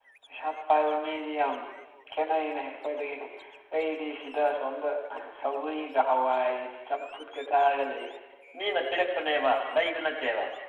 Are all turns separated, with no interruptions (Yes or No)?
Yes